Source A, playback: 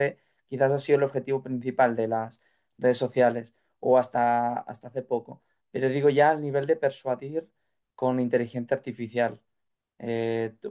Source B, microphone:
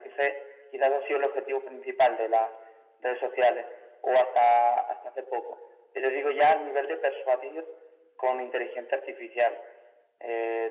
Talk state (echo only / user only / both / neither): echo only